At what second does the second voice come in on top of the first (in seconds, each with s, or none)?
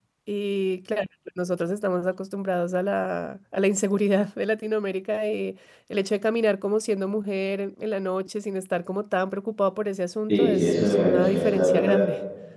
10.3 s